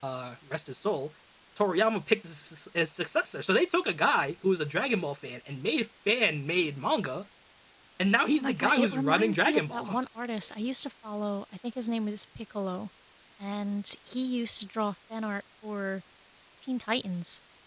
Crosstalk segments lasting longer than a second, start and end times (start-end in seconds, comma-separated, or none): 8.3-10.0